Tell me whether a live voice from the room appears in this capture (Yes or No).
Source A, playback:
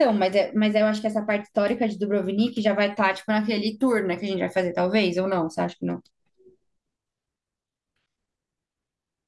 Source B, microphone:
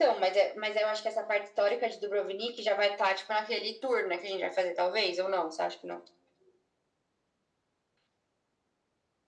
No